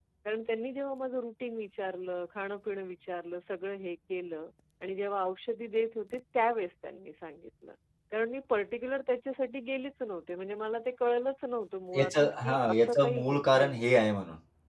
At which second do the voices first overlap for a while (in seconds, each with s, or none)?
11.9 s